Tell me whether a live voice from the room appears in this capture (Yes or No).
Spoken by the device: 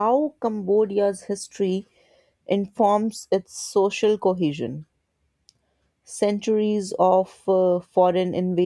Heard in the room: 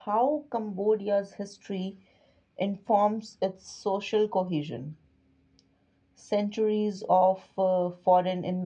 No